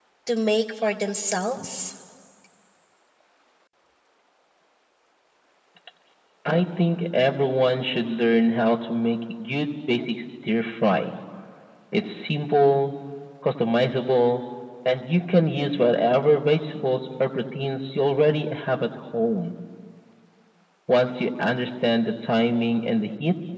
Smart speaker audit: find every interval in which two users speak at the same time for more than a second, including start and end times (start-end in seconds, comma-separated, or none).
none